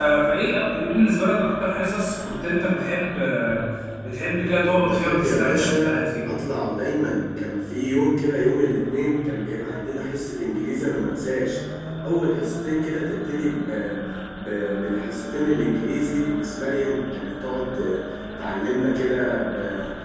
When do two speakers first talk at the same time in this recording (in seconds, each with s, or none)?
4.7 s